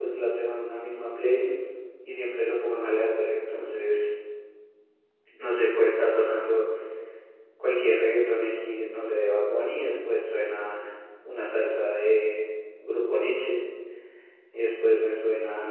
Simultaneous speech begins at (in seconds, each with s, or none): none